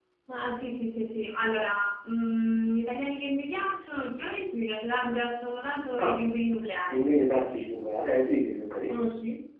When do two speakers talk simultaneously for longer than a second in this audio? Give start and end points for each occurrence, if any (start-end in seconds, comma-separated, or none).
none